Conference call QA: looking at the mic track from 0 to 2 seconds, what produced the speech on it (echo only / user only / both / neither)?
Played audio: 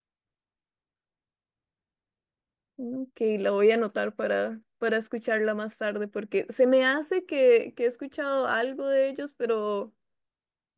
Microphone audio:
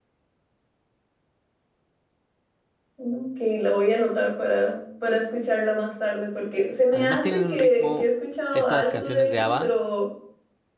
neither